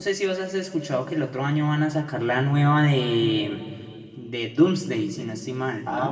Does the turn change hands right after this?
Yes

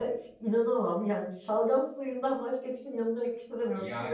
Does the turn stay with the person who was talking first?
No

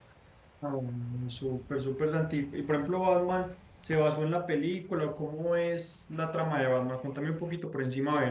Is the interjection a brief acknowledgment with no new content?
No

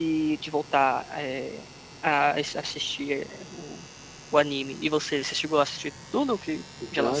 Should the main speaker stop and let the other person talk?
Yes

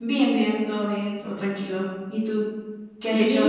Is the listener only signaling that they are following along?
No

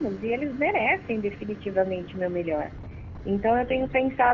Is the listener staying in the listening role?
Yes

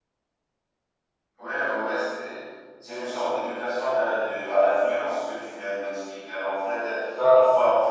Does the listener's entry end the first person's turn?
No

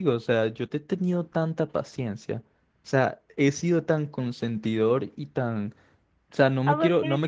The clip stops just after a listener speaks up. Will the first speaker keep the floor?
No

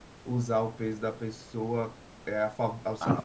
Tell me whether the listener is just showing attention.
No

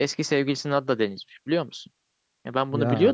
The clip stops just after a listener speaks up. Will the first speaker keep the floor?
Yes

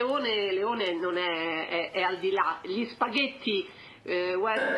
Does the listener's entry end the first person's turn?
No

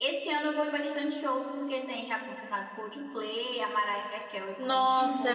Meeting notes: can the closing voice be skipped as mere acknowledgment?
No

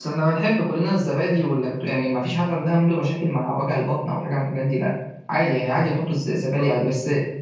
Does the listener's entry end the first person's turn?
No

